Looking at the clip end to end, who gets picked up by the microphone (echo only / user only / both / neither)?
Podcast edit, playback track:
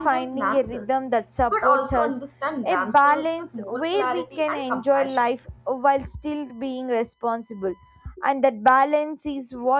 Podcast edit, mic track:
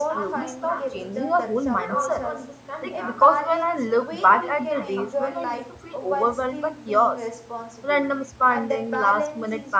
both